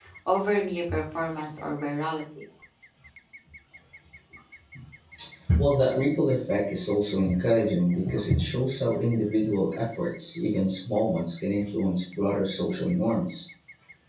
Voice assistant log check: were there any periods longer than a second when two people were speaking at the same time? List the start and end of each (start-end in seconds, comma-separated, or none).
none